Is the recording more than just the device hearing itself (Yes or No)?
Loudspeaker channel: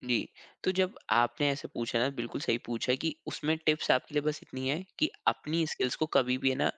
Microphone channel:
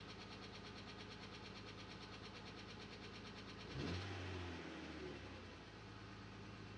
No